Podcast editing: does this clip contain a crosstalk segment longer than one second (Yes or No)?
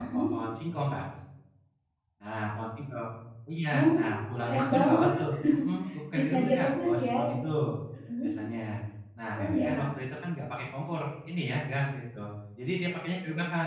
Yes